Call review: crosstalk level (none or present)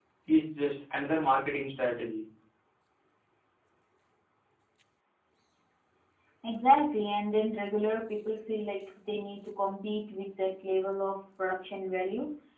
none